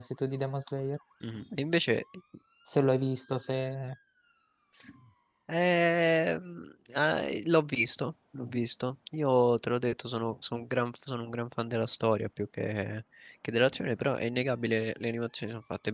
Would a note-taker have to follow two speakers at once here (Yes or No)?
No